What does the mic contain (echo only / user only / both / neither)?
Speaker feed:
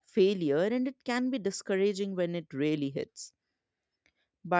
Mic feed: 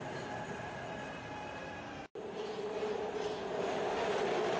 neither